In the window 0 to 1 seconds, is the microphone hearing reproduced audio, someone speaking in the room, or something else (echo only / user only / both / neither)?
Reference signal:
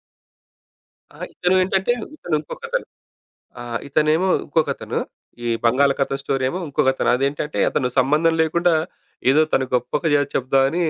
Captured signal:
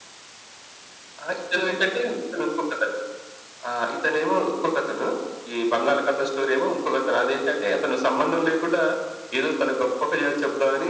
neither